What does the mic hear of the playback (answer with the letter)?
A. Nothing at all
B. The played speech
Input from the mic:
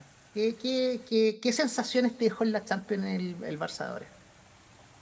A